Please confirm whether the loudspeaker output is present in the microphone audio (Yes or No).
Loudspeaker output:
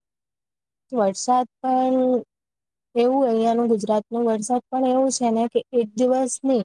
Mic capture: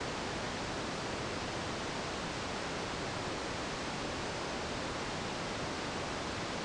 No